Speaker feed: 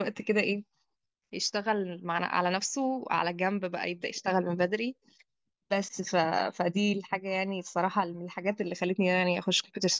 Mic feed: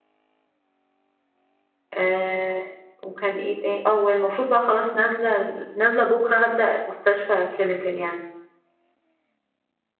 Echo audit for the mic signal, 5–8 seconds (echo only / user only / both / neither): user only